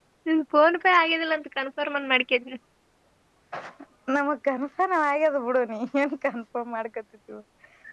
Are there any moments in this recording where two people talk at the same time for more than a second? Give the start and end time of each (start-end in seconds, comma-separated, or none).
none